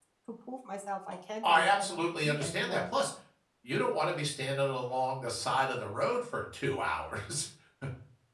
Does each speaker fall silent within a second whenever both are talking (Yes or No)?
No